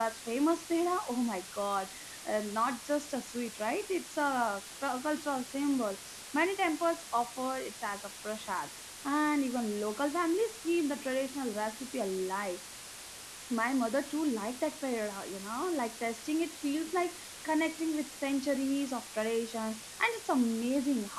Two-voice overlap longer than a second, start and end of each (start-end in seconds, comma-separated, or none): none